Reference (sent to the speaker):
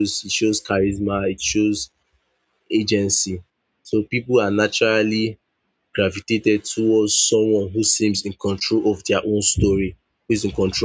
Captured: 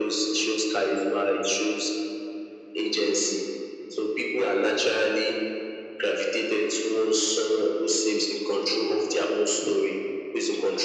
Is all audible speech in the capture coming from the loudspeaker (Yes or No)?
Yes